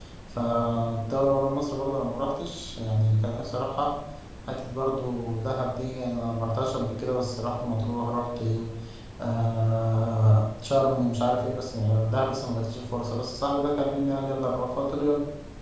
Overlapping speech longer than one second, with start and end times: none

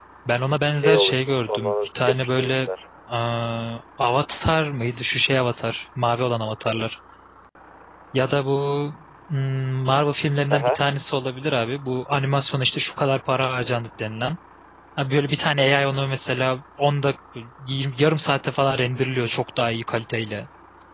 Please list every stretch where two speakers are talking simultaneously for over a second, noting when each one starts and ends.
0.7-2.7

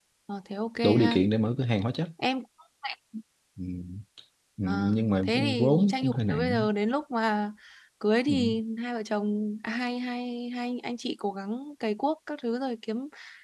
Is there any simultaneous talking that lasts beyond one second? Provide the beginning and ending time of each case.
4.7-6.6

